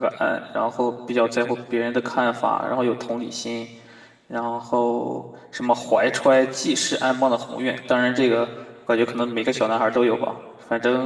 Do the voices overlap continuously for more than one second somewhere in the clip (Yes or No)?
No